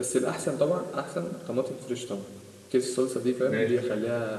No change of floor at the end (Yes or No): Yes